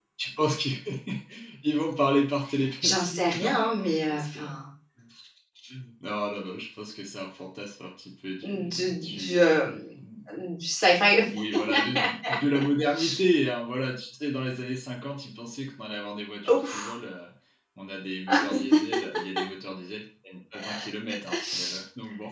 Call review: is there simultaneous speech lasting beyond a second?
Yes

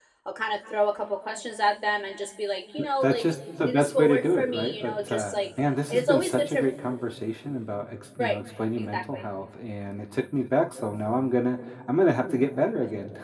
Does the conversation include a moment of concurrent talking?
Yes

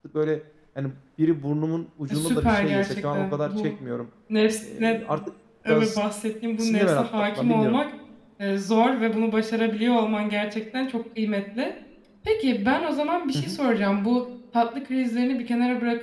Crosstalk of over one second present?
Yes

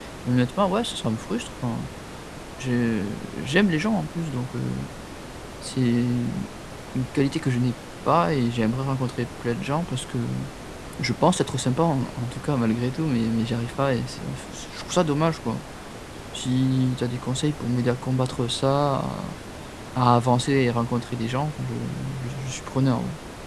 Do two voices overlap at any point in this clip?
No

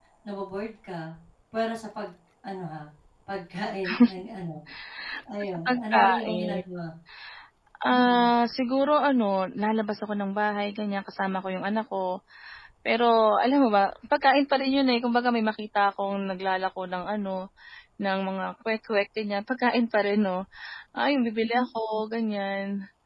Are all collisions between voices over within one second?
No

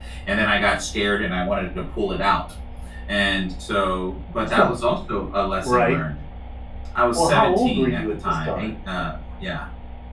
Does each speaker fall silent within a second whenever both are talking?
No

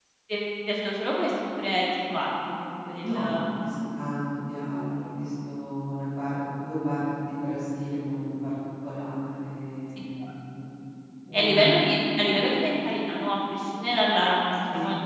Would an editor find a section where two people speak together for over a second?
No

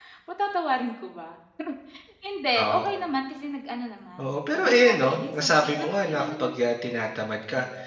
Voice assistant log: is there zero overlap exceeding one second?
No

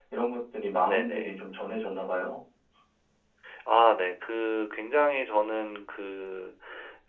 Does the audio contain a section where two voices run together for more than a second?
No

